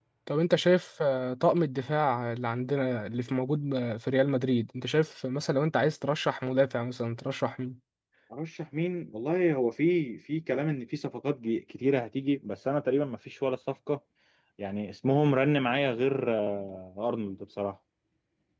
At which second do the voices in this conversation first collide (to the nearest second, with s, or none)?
none